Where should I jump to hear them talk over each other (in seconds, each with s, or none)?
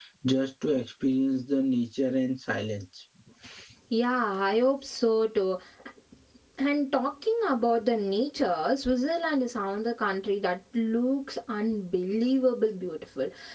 none